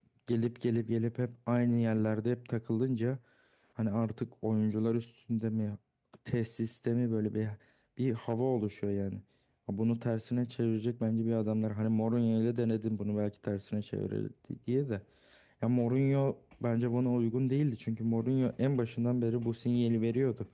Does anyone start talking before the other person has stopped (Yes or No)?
No